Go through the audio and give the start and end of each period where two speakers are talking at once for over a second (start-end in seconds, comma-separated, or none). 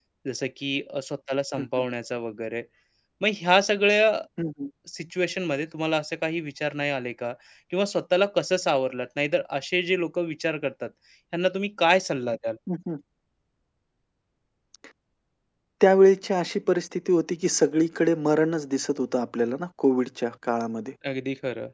none